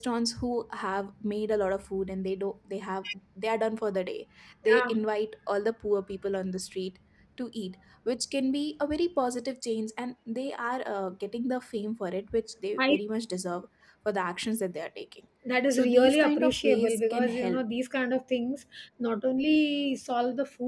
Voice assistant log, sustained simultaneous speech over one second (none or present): present